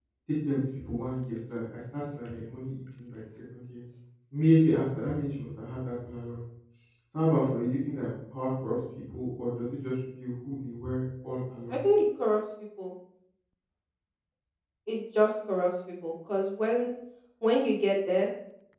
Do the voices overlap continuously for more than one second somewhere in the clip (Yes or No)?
No